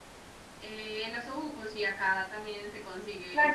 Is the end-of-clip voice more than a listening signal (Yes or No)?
Yes